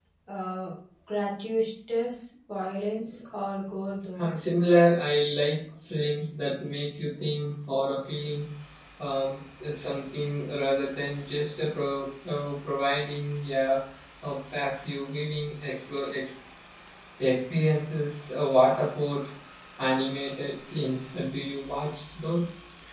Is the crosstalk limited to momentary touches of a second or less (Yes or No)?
Yes